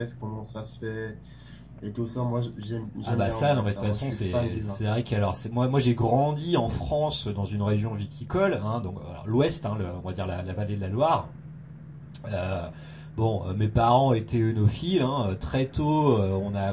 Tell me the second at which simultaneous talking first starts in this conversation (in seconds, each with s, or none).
3.0 s